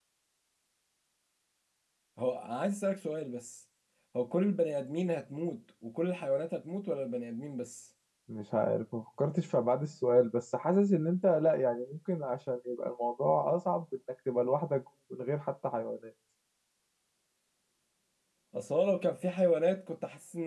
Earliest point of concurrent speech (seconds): none

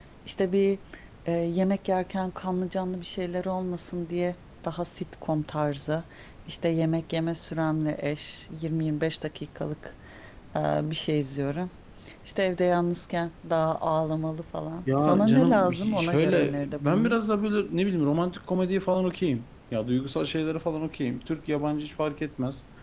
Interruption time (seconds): 14.9 s

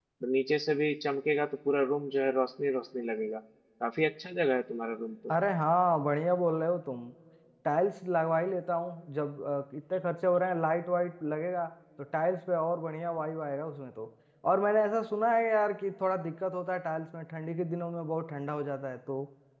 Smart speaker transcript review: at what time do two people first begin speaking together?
none

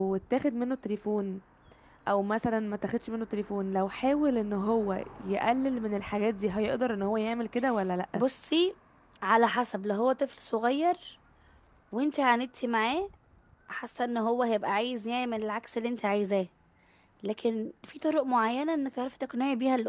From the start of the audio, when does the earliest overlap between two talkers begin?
none

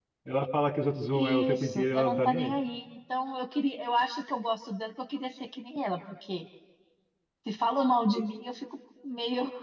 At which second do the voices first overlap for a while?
1.1 s

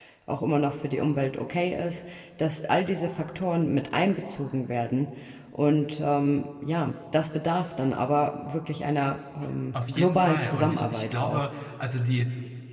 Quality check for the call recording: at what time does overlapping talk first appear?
9.7 s

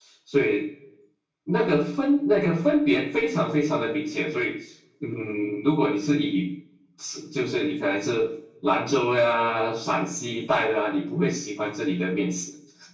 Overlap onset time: none

